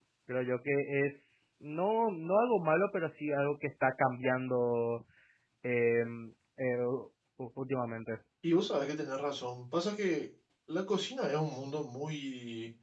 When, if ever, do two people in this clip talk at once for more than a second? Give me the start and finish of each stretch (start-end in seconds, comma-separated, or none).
none